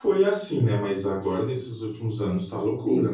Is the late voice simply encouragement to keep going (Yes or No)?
Yes